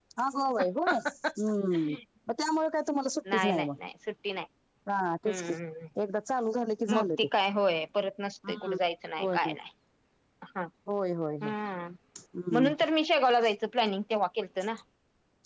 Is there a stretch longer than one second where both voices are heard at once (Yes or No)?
No